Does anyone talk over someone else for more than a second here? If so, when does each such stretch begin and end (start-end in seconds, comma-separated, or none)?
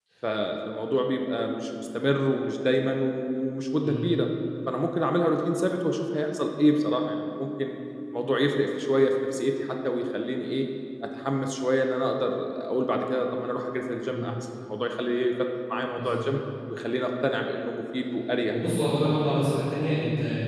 none